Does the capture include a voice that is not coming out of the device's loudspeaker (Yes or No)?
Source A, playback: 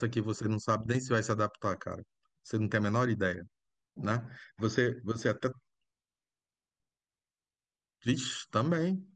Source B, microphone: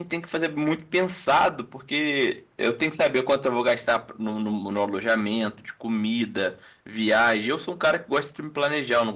Yes